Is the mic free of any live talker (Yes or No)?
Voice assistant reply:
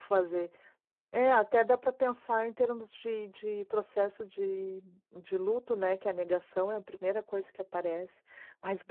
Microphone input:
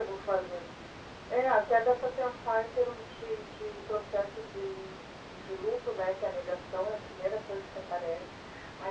Yes